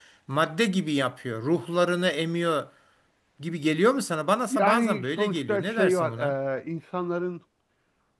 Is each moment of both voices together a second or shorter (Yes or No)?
No